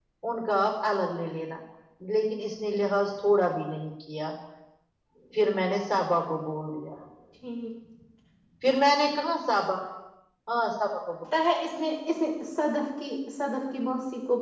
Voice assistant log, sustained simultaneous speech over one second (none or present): none